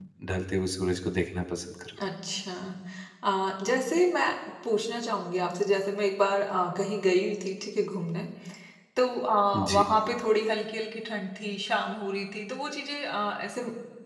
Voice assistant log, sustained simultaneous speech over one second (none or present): none